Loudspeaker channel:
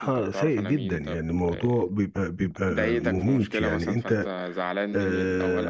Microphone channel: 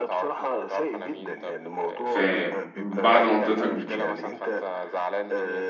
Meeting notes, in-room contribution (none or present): present